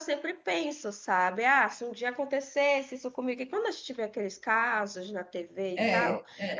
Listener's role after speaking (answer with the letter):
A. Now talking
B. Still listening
B